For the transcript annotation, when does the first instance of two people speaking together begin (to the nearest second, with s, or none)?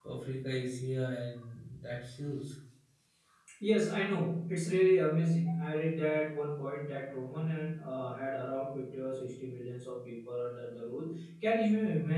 none